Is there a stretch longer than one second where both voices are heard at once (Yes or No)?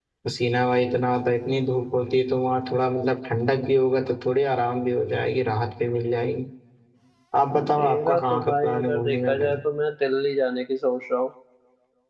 Yes